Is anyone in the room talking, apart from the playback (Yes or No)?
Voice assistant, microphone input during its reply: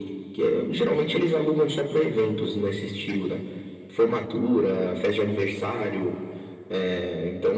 No